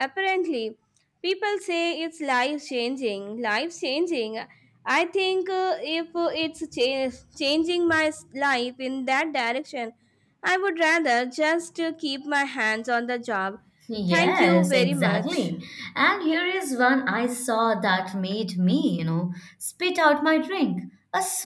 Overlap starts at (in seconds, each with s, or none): 14.1 s